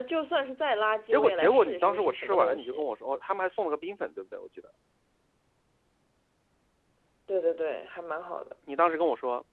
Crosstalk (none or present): present